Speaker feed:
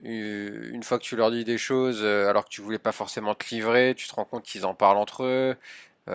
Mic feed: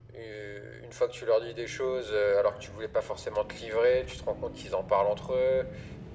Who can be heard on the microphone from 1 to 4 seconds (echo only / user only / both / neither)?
echo only